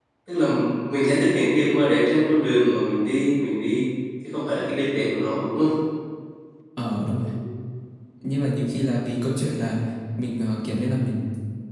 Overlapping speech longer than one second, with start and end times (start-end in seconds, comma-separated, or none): none